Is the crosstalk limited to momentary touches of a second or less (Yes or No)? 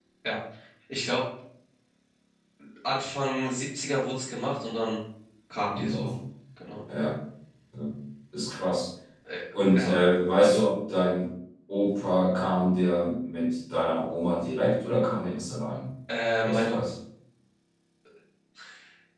Yes